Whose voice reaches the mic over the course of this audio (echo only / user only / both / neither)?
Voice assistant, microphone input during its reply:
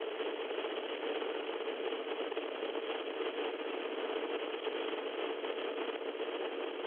neither